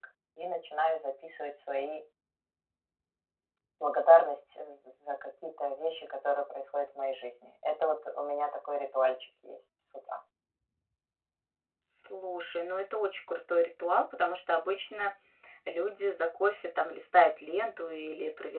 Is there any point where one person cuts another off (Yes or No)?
No